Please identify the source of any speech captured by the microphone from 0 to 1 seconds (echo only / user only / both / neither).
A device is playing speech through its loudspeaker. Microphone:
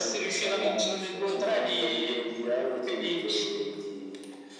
both